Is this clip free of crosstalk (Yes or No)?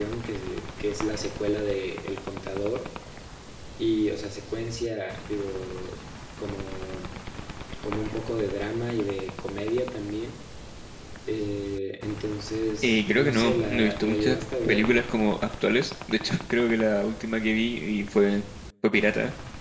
No